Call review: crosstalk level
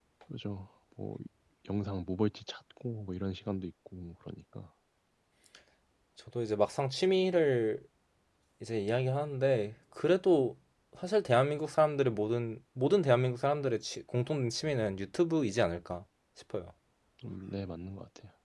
none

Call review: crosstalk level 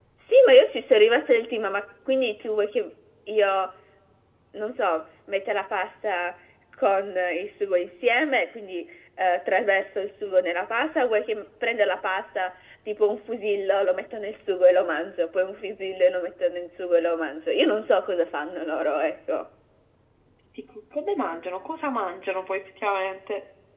none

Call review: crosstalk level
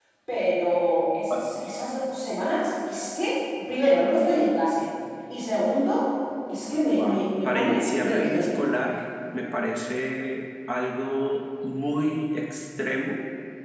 present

